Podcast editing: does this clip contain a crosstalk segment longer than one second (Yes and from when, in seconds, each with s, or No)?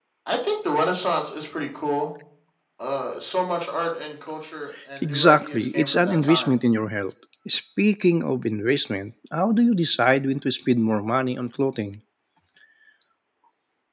Yes, from 5.0 s